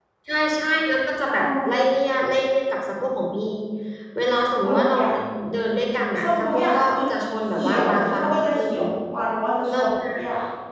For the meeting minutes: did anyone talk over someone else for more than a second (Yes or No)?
Yes